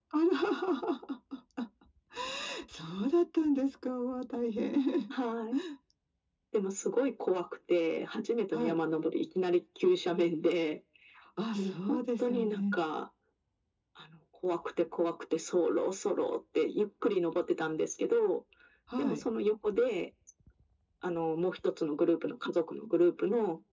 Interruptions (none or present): present